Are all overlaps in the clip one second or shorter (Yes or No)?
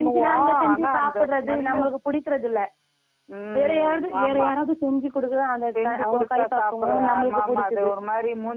No